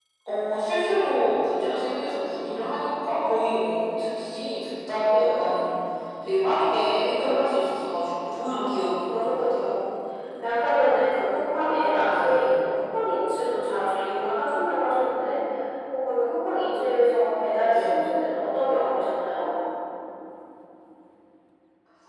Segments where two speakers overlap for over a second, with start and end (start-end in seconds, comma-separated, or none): 8.4-9.7